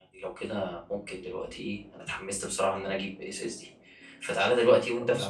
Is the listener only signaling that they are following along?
Yes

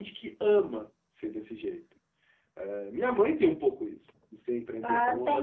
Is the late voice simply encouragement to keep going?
No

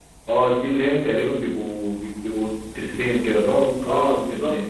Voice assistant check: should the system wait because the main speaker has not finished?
No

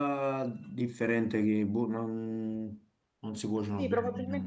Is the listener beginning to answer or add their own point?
Yes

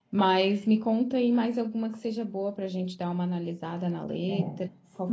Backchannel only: No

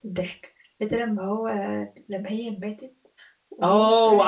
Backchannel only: No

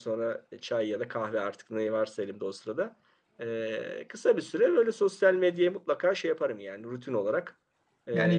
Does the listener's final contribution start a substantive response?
Yes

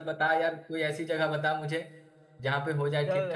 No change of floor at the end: No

